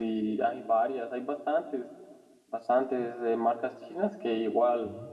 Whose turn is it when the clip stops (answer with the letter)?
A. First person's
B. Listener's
A